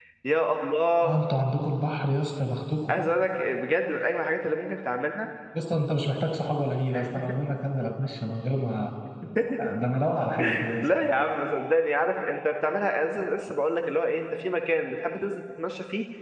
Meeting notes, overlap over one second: none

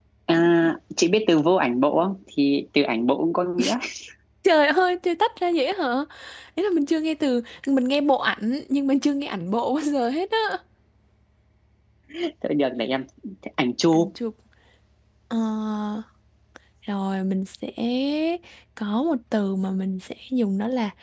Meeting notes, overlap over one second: none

